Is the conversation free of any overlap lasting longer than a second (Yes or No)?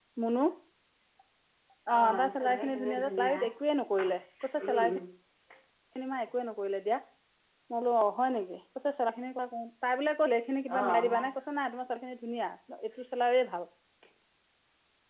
No